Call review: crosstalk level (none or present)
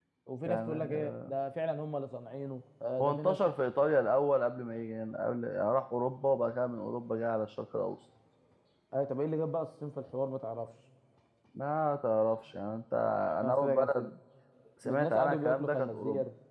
present